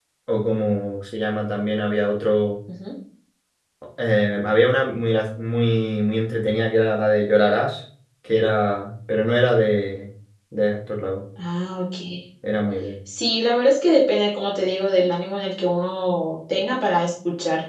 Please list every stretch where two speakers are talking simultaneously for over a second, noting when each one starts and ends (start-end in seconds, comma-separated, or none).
none